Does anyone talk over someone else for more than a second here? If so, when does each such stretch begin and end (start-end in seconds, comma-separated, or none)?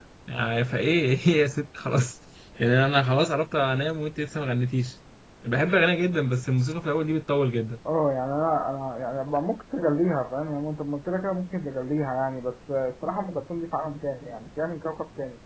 none